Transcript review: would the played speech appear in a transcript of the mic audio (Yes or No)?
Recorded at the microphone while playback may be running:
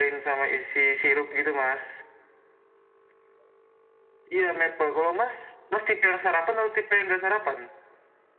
Yes